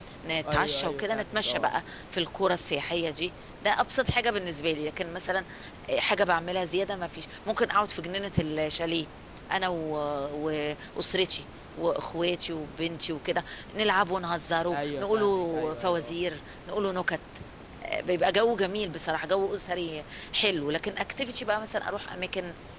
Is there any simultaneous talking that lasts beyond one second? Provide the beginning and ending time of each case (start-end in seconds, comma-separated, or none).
0.5-1.7, 14.7-16.1